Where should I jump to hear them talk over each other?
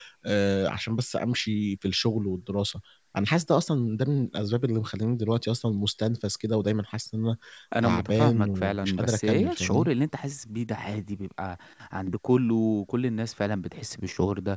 7.8 s

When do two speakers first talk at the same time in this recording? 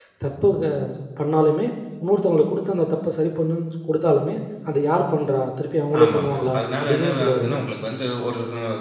5.9 s

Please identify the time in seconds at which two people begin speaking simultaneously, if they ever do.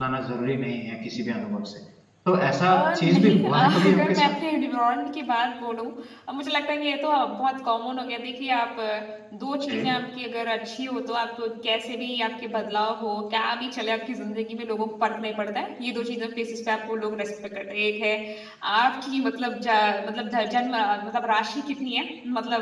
2.7 s

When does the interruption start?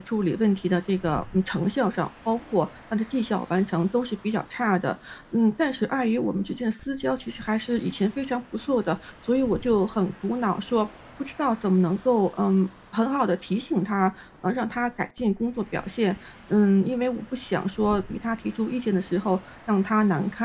none

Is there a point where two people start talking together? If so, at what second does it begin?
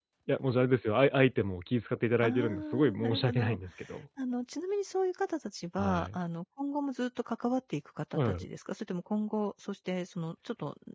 2.2 s

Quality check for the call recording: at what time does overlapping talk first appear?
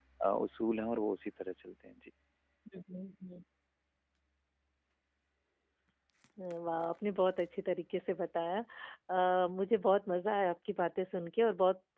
none

